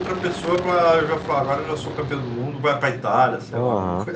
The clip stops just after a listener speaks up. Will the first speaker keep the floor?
No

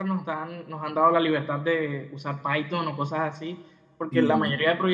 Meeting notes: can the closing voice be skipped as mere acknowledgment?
Yes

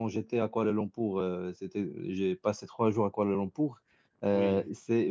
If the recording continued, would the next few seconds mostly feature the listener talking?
No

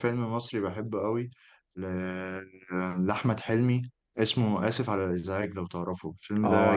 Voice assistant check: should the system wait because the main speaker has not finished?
No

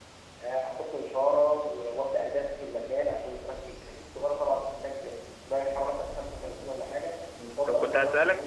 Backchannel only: No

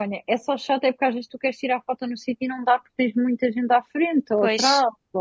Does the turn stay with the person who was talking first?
Yes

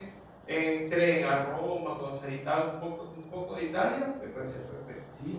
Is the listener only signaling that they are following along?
No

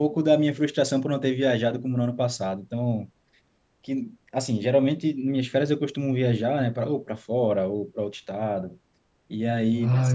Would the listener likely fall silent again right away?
Yes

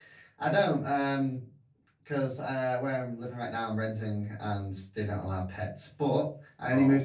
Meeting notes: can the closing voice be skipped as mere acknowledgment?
Yes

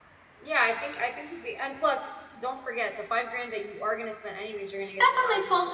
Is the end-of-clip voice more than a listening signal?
Yes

